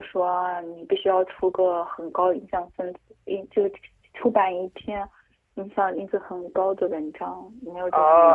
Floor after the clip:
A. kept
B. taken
B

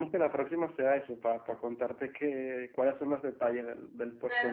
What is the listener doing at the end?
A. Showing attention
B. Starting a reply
B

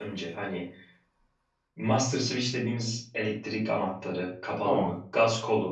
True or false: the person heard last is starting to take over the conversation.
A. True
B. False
B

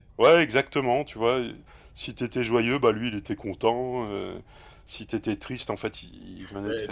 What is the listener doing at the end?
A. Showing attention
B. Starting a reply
A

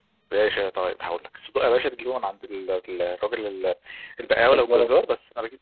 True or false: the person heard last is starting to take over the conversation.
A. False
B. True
A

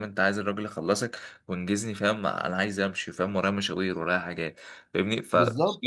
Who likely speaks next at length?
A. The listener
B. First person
B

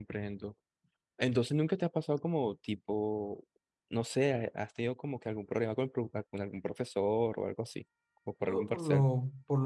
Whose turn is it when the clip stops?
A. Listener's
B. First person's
A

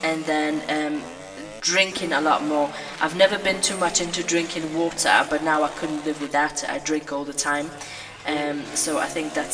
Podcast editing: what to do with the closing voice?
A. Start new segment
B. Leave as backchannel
B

